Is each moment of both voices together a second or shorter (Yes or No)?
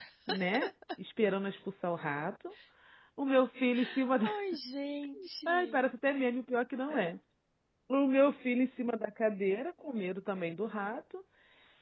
Yes